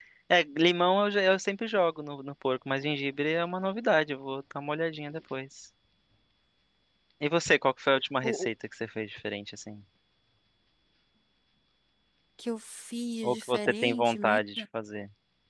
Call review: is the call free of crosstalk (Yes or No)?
No